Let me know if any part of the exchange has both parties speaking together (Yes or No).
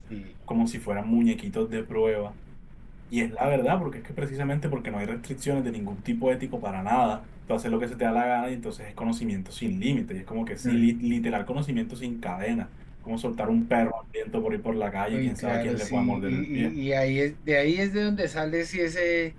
Yes